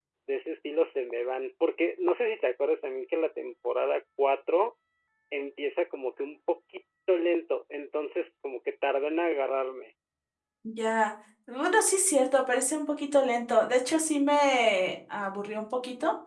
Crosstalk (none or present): none